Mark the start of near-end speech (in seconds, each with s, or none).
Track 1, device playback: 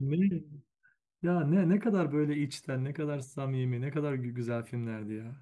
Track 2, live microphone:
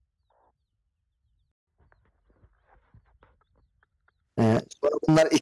4.4 s